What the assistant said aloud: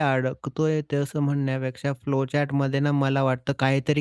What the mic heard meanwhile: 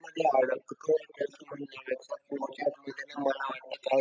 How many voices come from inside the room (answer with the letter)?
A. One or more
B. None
B